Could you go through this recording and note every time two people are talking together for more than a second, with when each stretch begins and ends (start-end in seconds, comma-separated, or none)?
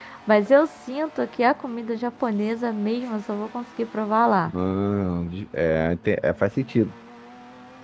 none